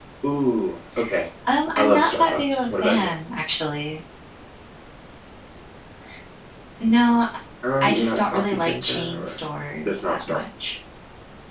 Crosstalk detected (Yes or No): Yes